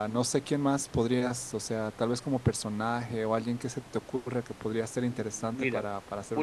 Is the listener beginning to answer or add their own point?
Yes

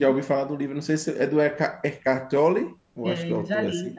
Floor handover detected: Yes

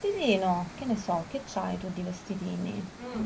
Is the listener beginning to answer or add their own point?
Yes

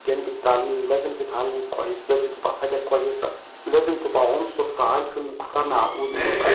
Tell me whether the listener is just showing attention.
No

